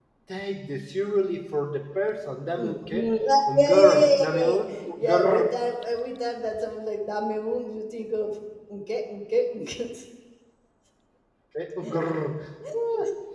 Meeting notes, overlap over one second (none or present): present